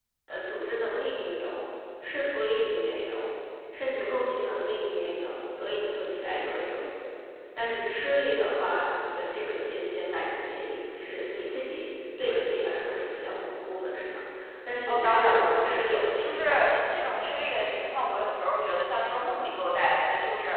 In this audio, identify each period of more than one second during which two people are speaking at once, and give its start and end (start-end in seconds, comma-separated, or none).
14.9-16.6